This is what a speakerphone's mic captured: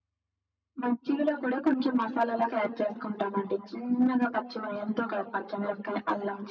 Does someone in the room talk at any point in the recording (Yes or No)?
No